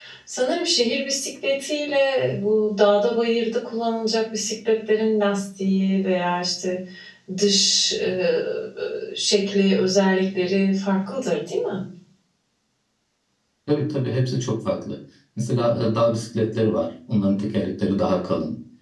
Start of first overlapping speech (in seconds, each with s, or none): none